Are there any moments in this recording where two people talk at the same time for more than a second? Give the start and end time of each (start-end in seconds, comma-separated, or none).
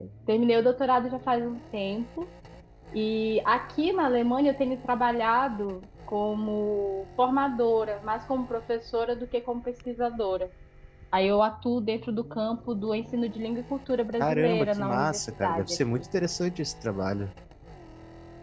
14.2-16.0